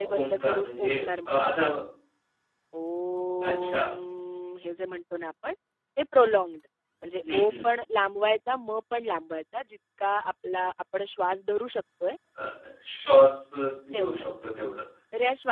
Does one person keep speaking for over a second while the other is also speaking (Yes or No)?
Yes